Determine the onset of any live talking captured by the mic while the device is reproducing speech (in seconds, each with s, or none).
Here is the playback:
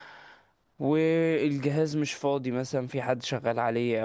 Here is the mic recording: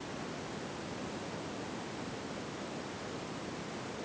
none